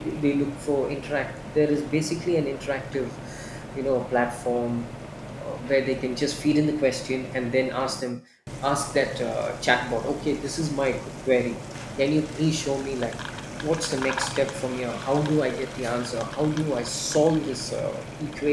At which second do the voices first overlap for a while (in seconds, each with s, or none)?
none